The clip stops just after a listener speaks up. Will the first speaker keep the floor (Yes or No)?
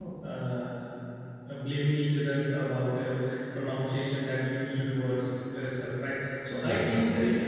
Yes